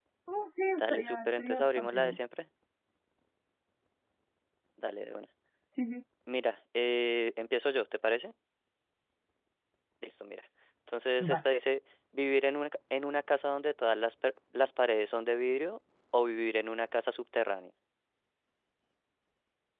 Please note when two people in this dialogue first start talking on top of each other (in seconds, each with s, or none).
0.8 s